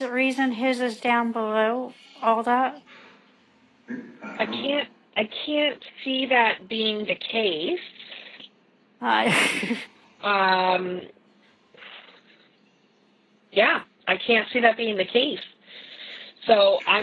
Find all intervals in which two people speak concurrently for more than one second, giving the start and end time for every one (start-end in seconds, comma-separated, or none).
none